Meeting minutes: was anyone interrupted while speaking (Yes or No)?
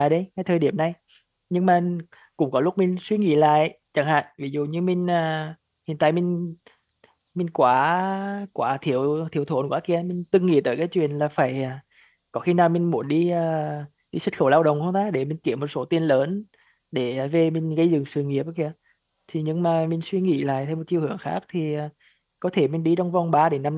No